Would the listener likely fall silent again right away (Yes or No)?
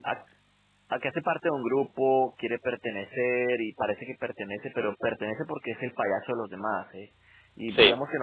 Yes